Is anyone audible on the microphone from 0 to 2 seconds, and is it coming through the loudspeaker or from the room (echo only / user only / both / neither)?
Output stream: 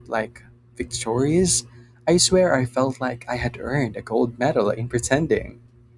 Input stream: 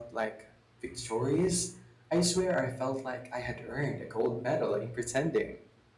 echo only